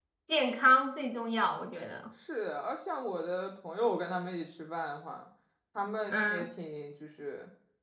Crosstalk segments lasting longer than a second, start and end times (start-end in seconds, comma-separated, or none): none